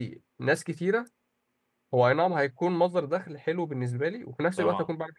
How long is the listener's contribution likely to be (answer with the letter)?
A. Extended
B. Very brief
B